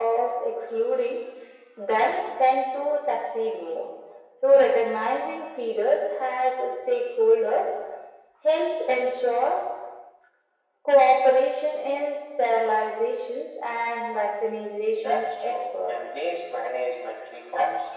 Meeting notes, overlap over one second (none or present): present